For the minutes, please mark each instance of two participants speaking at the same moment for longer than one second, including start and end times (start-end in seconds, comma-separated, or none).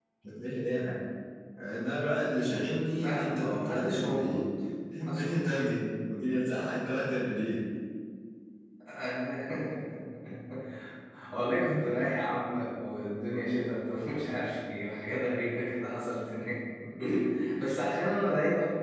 3.0-4.5